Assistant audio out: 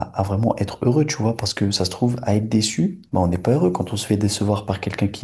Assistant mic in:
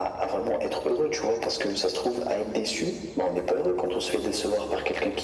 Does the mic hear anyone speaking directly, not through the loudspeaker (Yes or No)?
No